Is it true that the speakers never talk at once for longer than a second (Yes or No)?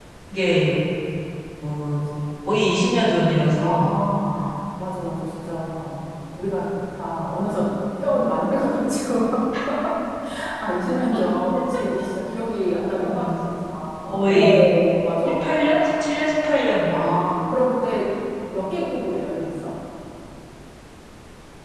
Yes